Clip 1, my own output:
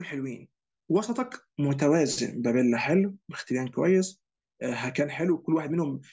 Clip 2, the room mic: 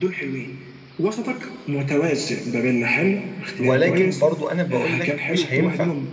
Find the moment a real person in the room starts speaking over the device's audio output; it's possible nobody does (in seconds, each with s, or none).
3.6 s